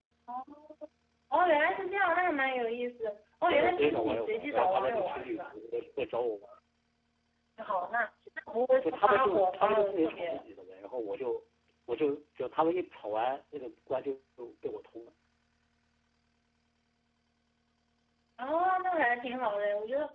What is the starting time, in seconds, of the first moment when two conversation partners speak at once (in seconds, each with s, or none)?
3.5 s